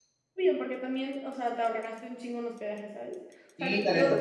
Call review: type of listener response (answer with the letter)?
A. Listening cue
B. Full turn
B